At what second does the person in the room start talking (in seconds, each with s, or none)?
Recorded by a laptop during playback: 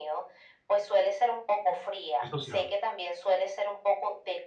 2.2 s